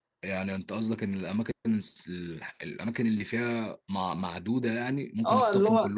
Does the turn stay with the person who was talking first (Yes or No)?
No